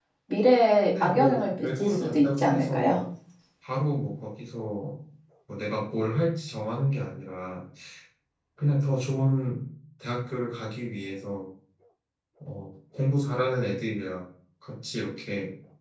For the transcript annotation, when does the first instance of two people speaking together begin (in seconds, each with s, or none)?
0.8 s